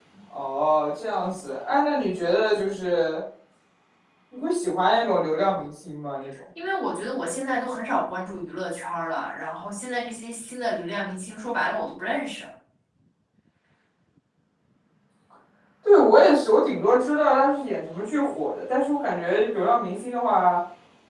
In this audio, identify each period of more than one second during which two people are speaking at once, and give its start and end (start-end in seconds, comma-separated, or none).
none